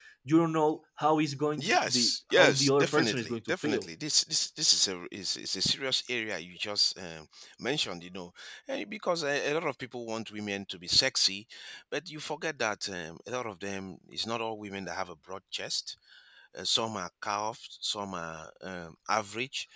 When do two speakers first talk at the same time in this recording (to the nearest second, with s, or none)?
2 s